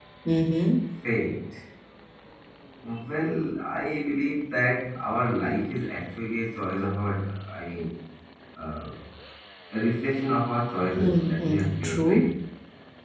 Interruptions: present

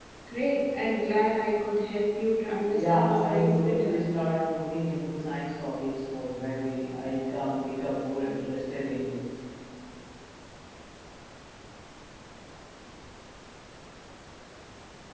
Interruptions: present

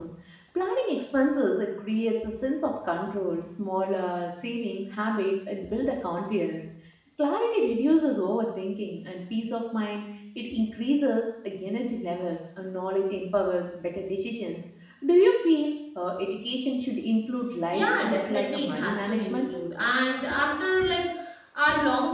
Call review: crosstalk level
present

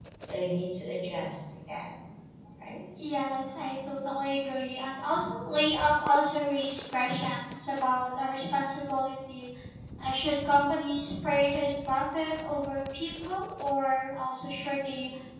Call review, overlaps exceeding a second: none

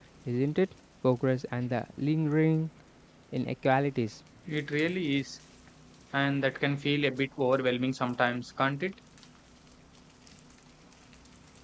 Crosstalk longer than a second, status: none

